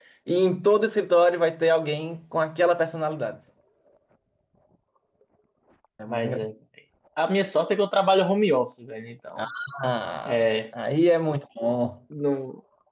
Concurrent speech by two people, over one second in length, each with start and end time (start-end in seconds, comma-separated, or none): none